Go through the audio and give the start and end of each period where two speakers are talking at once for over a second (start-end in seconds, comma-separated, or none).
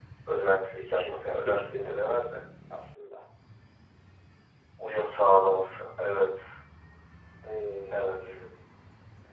0.8-2.2